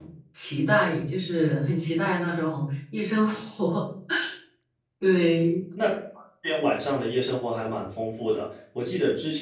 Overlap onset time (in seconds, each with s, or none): none